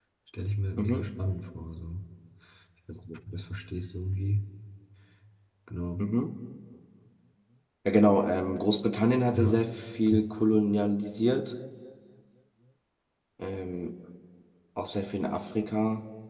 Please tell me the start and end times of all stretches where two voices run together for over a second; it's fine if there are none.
none

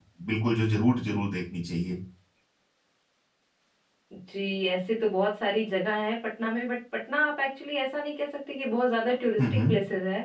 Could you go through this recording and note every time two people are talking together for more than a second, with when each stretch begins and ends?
none

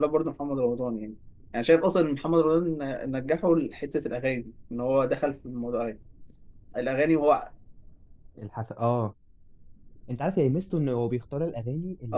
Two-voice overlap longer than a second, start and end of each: none

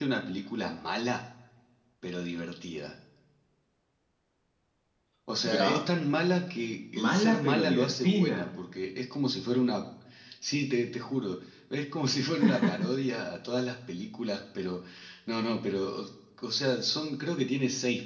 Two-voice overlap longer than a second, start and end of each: 6.9-8.4

